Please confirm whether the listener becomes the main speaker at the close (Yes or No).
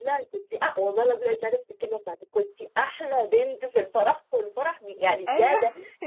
No